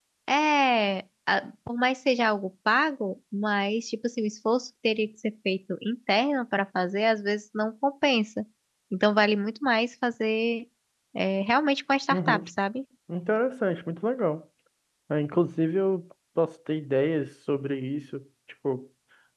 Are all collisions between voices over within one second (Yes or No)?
Yes